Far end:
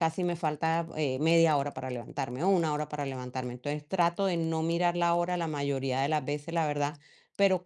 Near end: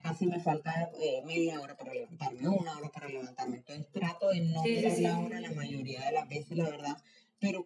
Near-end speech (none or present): present